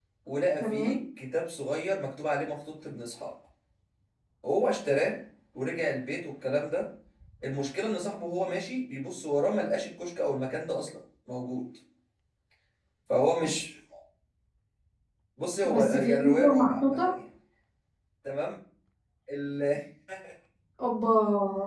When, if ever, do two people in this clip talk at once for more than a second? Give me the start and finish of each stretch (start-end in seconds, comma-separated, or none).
15.6-17.1